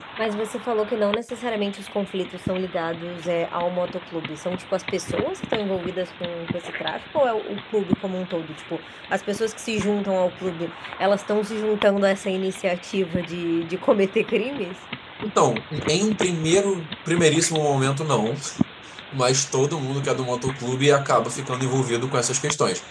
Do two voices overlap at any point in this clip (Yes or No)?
No